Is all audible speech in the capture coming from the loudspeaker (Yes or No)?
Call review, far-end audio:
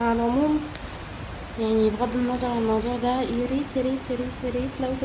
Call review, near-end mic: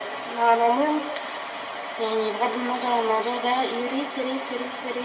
Yes